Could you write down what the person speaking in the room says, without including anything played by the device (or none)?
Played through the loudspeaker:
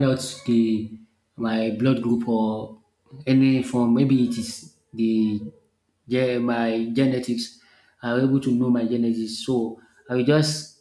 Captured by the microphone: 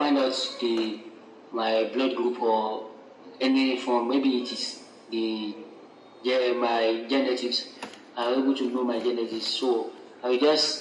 none